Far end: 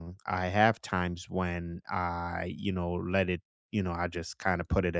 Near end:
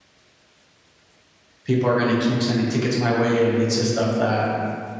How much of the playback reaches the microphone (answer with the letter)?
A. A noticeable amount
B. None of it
B